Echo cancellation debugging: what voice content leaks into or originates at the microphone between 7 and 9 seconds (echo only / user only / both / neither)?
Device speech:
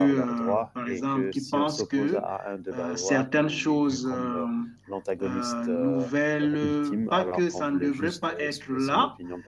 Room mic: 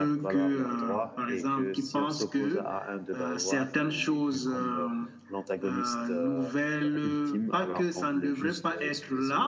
echo only